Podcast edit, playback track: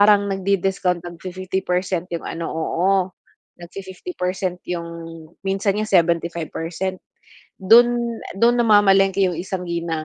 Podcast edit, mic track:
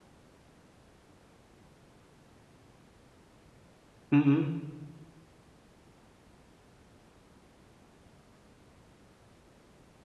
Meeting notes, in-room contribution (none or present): present